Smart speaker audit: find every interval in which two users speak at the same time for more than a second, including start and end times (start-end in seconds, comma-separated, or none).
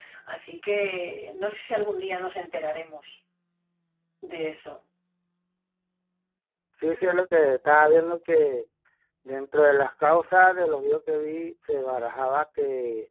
none